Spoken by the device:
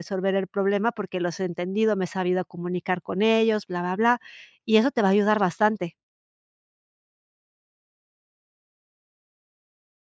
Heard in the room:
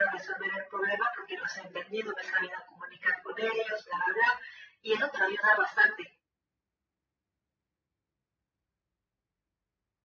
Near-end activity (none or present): none